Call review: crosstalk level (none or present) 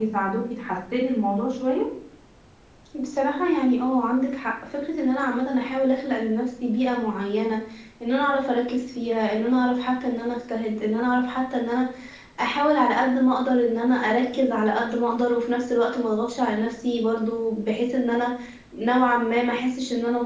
none